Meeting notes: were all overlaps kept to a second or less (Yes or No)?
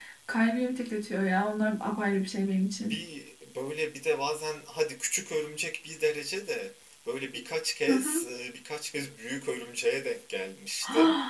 Yes